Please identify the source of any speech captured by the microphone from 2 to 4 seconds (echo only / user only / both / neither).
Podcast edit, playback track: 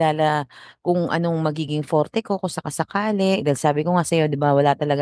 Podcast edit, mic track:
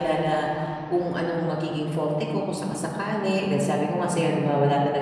echo only